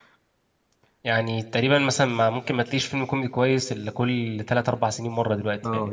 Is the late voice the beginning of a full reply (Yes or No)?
Yes